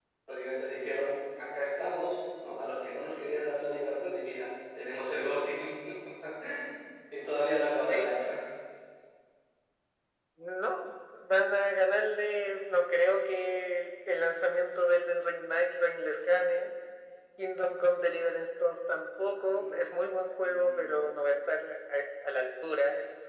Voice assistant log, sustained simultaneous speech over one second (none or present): none